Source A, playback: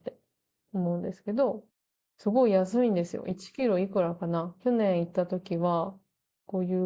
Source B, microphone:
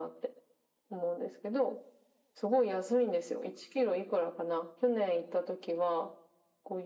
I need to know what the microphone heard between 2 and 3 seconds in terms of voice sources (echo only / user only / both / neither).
echo only